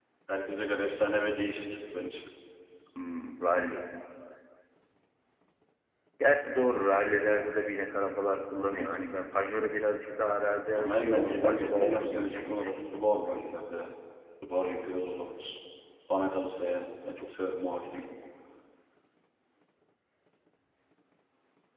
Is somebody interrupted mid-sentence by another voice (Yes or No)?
Yes